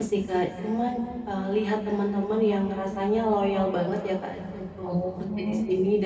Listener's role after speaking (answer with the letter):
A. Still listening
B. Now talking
A